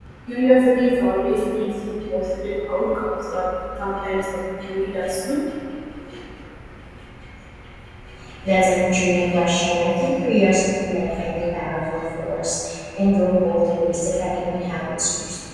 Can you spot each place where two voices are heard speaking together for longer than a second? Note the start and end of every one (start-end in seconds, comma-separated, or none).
none